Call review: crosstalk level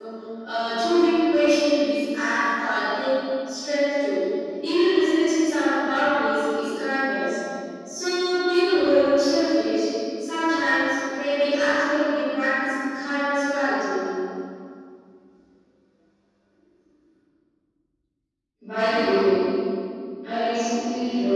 none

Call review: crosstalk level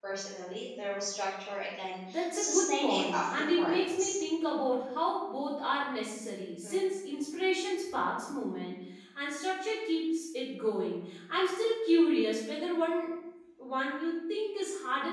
present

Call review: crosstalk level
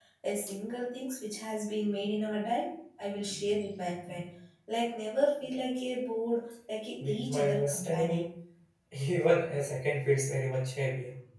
present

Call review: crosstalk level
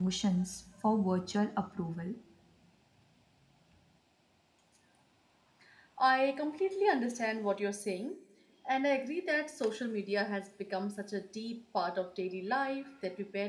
none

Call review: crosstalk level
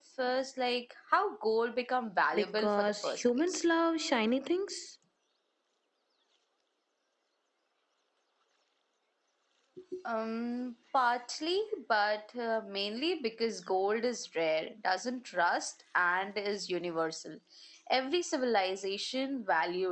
present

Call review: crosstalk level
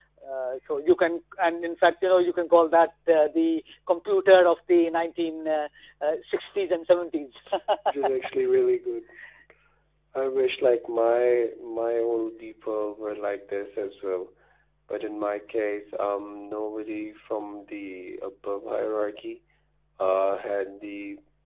none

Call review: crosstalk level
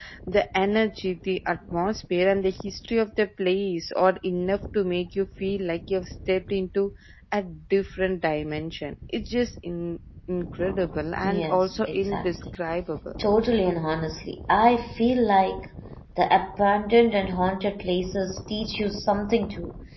present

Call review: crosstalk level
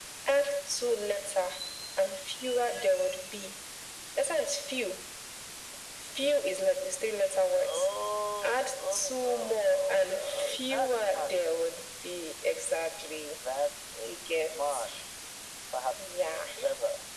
present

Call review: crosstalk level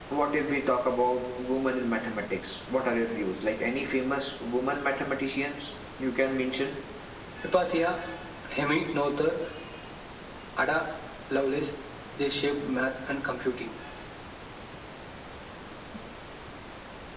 none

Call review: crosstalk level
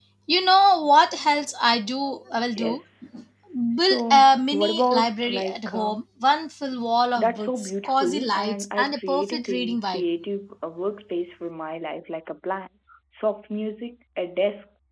present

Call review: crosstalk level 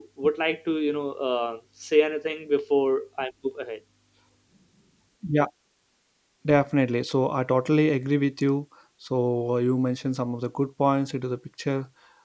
none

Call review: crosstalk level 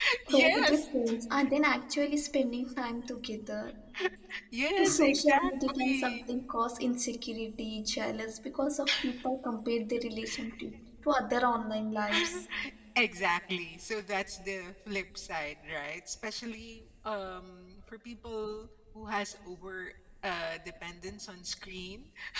present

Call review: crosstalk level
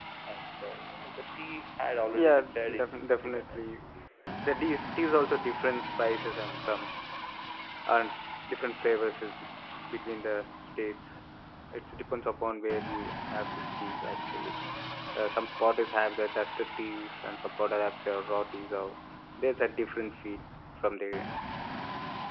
present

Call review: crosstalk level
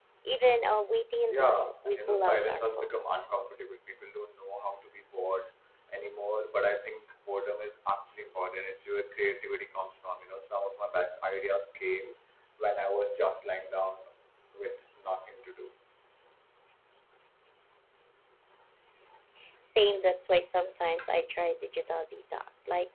present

